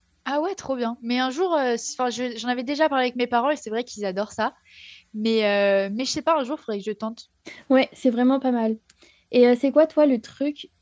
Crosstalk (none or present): none